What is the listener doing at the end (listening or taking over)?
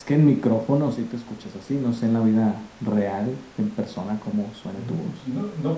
taking over